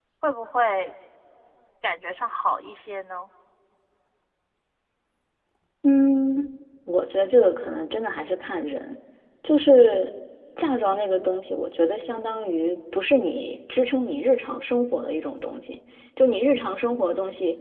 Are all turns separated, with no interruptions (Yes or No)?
Yes